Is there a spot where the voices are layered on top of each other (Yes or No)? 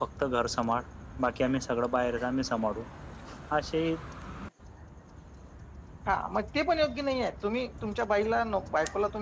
No